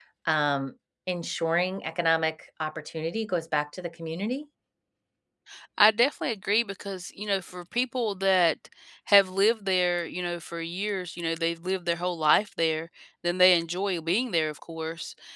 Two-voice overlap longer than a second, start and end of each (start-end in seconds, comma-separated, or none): none